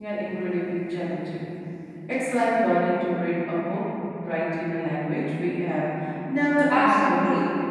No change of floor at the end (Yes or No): No